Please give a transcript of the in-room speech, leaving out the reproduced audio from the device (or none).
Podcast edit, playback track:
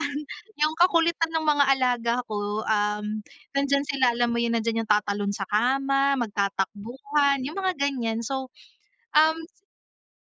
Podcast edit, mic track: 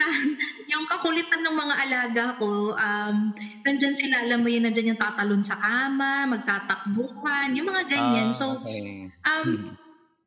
Ah, okey. Mm.